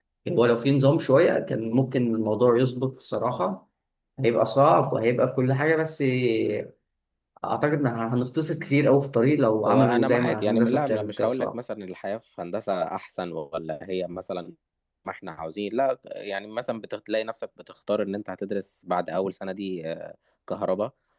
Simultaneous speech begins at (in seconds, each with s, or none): 9.7 s